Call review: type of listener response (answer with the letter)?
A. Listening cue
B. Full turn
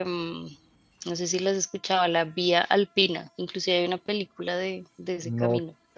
B